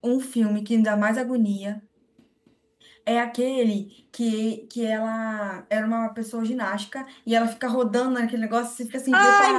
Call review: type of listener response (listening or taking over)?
taking over